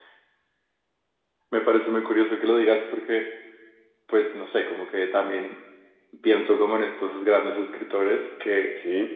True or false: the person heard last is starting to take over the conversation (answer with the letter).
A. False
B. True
A